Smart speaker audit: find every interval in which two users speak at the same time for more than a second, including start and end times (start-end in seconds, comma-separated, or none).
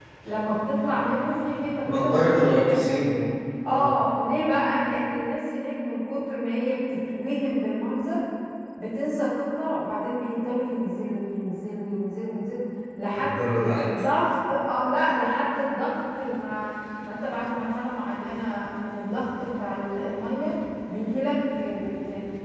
1.9-3.2